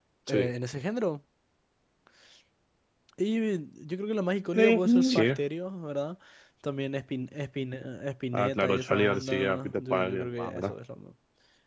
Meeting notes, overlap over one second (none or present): present